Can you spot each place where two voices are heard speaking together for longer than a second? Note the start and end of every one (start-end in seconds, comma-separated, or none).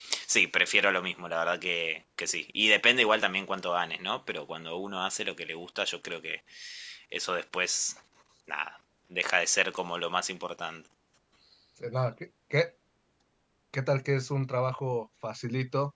none